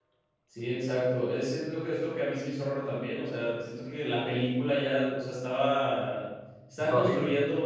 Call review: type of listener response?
listening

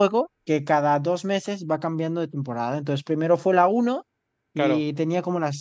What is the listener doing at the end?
listening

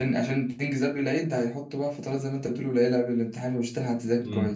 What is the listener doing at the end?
taking over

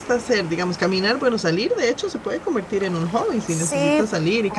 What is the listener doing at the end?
taking over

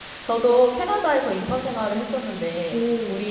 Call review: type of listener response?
listening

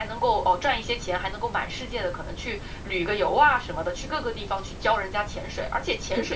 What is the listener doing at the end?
listening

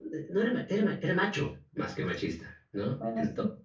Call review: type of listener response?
listening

